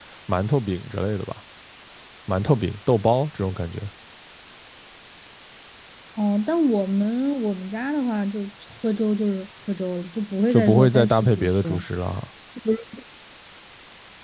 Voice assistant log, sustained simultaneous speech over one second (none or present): present